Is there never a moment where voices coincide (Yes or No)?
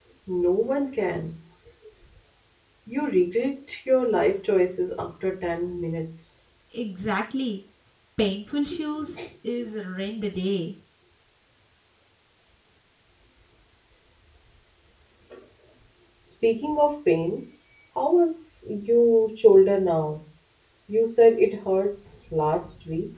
Yes